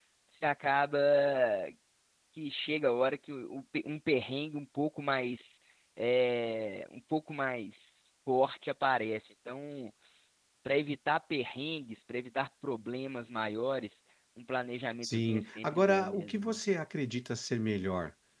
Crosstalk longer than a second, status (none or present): present